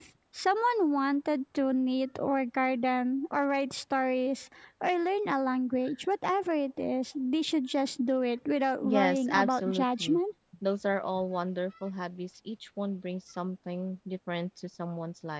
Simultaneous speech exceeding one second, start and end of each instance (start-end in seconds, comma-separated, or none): 8.8-10.2